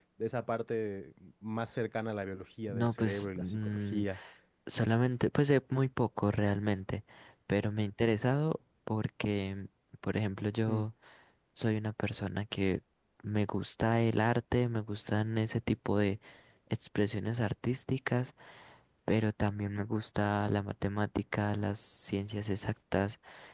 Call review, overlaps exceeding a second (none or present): present